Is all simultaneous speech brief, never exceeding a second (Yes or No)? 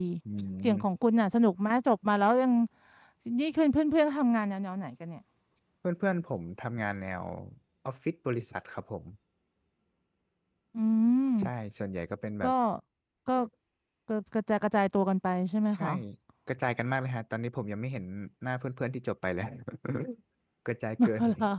Yes